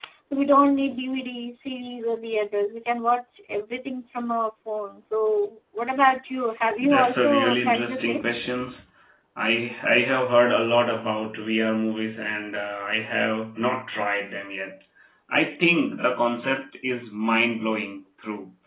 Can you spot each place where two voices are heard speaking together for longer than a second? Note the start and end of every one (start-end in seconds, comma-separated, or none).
6.8-8.2